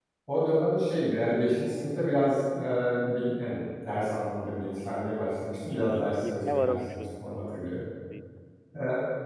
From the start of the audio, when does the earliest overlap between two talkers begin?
5.7 s

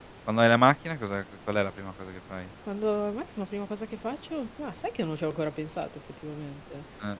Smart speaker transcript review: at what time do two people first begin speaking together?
none

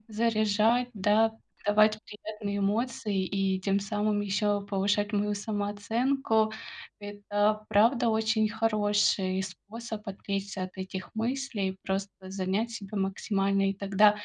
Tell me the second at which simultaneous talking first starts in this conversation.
none

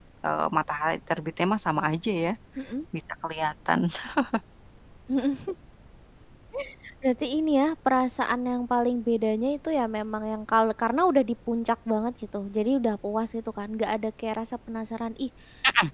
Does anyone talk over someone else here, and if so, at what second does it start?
none

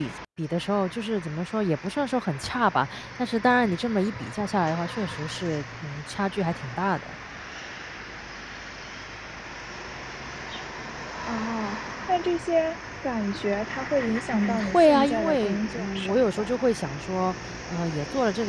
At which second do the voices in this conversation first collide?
14.3 s

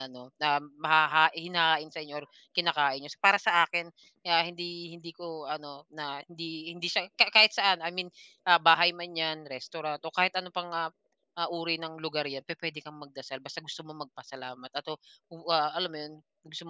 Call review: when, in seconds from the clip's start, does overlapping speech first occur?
none

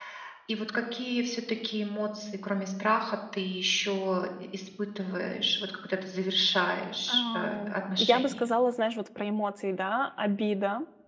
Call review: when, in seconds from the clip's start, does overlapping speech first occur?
7.1 s

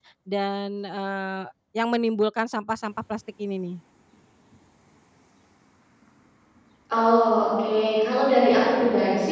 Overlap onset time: none

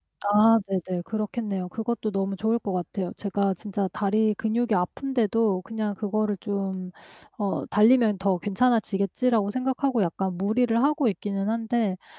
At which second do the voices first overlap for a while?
none

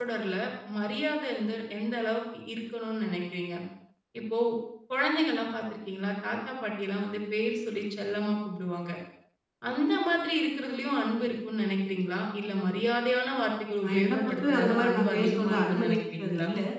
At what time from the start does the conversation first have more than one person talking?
13.8 s

